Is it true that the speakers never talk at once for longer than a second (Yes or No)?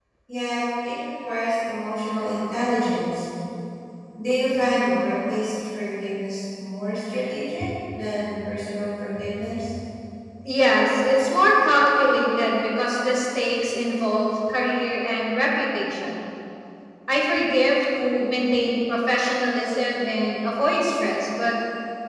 Yes